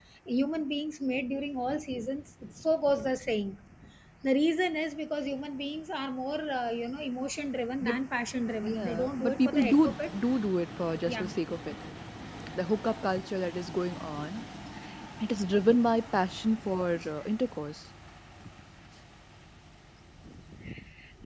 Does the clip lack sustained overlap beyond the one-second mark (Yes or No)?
No